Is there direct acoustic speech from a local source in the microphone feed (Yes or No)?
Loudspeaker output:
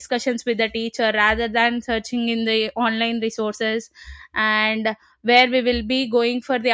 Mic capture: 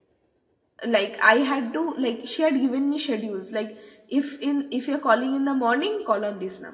Yes